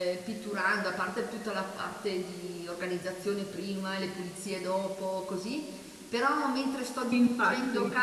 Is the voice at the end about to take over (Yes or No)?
No